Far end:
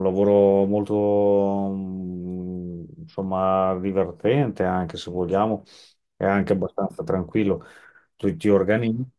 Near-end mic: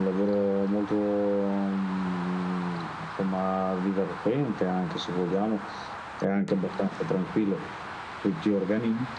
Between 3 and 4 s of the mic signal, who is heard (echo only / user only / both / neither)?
echo only